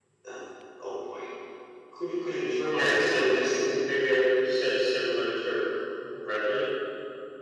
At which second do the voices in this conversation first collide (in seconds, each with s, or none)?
2.6 s